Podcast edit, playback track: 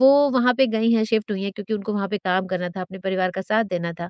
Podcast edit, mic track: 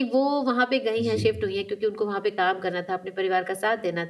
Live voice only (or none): जी,